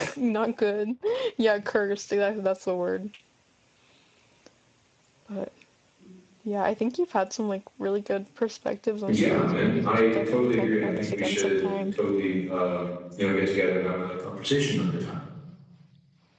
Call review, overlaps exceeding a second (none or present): present